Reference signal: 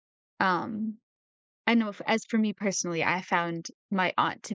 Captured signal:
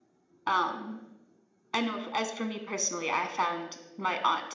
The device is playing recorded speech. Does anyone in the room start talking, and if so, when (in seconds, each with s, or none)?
none